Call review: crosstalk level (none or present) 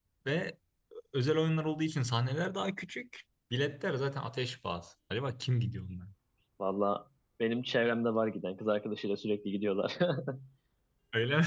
none